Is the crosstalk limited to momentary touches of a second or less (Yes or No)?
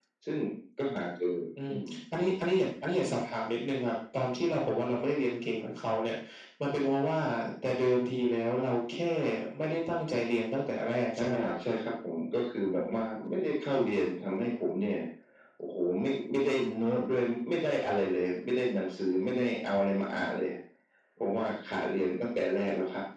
Yes